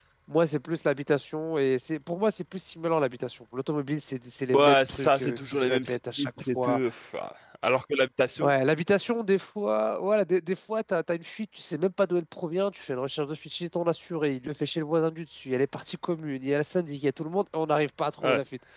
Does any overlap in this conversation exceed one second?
Yes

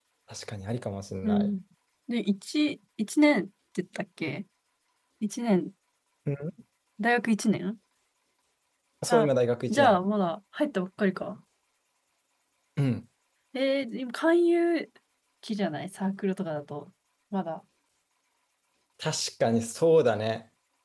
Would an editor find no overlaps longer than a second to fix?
Yes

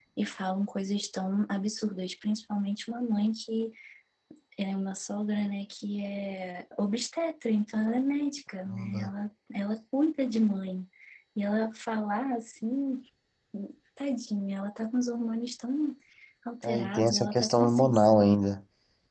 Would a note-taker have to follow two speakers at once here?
Yes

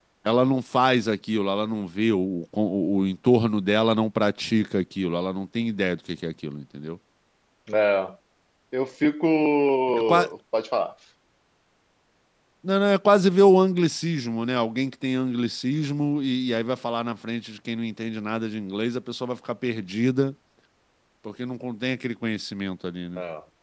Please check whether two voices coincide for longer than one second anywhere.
No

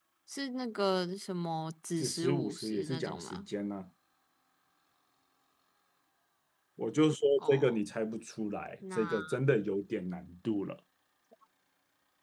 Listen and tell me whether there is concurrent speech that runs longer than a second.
Yes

